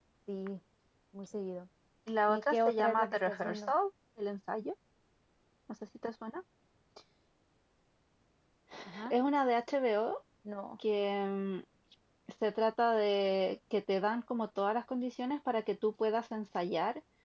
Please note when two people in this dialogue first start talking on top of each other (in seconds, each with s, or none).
2.3 s